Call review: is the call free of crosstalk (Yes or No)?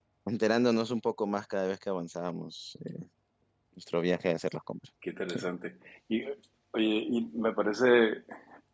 Yes